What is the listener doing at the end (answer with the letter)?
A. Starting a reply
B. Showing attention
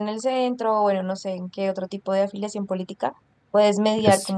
B